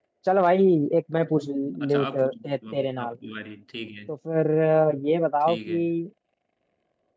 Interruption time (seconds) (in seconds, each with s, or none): 1.8 s